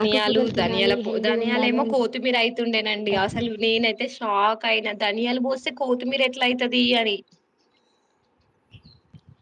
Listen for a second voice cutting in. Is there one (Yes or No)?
Yes